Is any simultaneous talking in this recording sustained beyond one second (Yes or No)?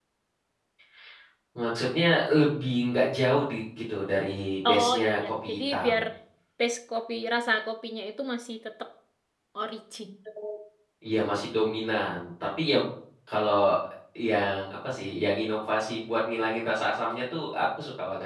Yes